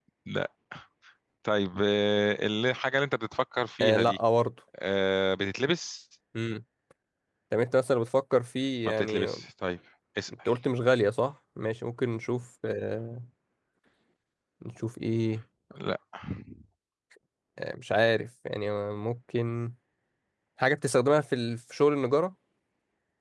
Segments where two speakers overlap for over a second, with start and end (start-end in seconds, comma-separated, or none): none